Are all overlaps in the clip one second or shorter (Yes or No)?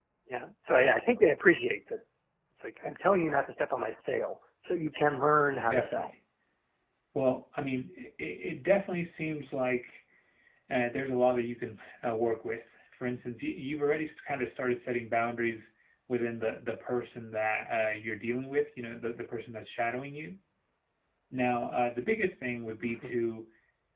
Yes